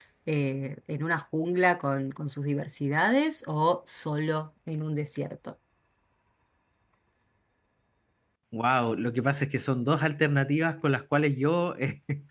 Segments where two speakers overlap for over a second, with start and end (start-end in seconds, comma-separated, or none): none